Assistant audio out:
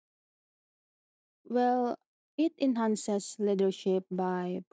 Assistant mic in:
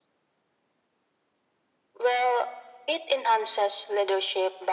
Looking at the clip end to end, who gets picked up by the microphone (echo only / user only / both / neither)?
echo only